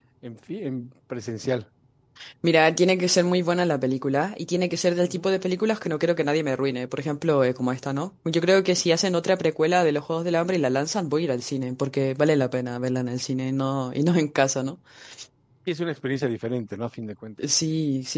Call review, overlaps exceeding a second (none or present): none